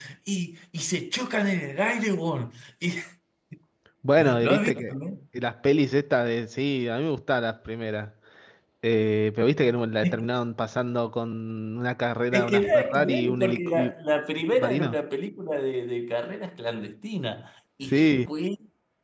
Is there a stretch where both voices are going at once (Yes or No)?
Yes